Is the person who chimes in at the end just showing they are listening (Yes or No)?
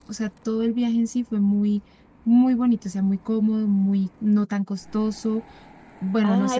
No